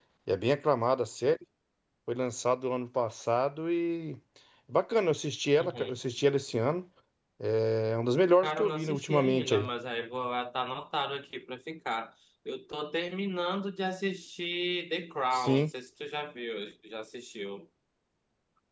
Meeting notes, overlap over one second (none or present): present